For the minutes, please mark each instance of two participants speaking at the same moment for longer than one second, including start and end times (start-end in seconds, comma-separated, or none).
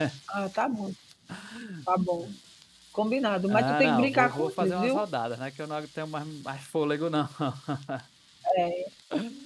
3.5-5.0